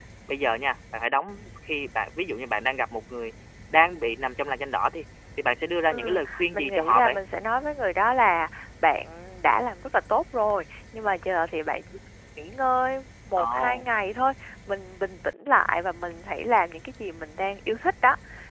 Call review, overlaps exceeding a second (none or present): present